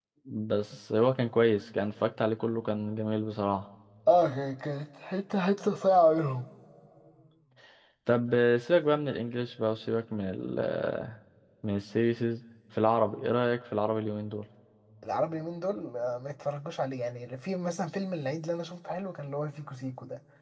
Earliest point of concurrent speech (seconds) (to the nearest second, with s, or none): none